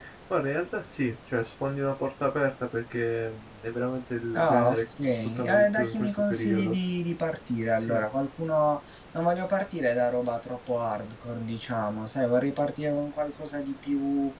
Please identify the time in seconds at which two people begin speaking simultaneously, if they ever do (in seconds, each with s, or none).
4.3 s